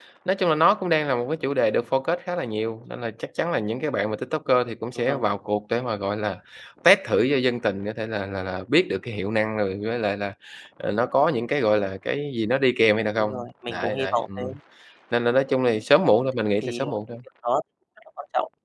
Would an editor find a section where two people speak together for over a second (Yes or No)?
Yes